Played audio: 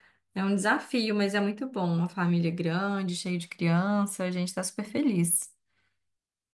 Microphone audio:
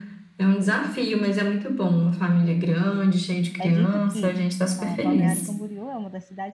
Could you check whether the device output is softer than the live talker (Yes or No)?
No